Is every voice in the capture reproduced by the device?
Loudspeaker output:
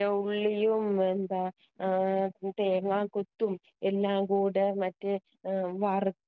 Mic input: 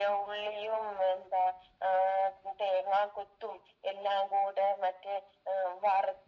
Yes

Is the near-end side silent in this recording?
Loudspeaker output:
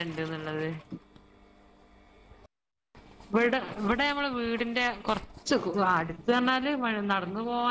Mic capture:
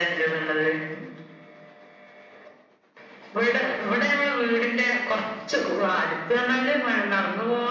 Yes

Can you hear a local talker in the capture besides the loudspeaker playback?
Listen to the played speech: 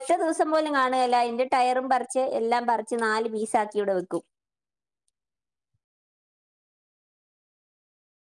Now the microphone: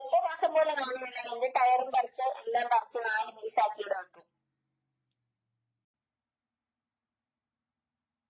No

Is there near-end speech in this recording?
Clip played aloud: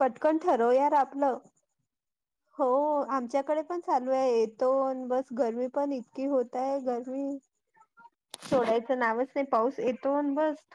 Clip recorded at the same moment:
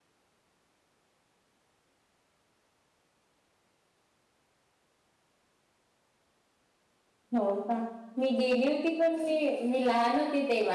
Yes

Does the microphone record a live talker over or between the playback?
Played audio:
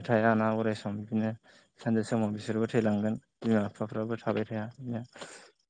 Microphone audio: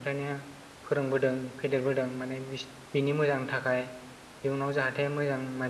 Yes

